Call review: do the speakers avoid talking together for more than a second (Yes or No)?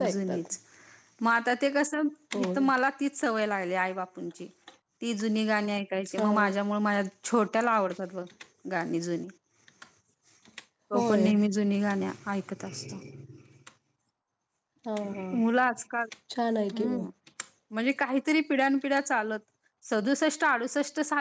Yes